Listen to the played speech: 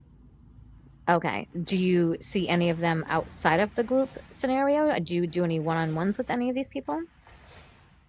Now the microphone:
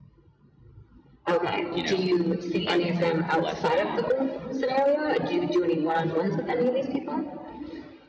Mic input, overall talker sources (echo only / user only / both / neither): both